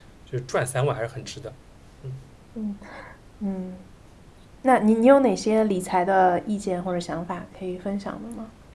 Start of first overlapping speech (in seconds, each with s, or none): none